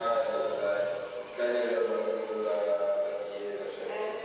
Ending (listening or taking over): taking over